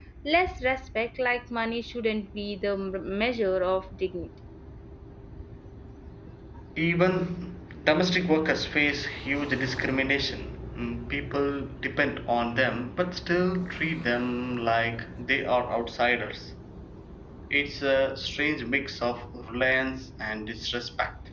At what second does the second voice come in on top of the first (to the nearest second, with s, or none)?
none